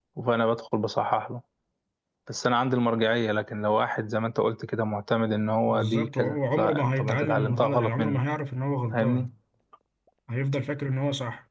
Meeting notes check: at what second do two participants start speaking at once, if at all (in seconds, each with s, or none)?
5.7 s